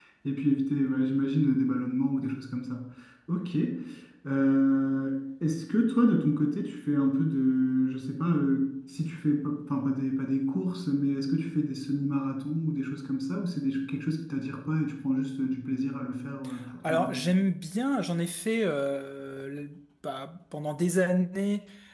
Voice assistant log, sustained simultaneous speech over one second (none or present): none